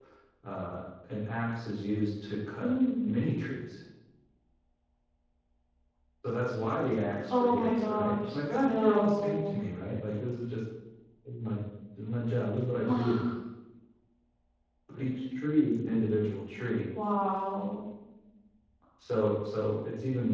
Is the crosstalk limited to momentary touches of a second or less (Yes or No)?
No